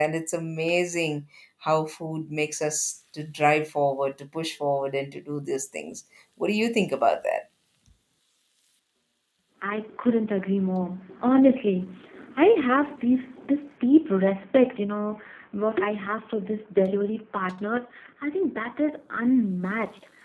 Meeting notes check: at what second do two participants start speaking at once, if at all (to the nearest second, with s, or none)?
none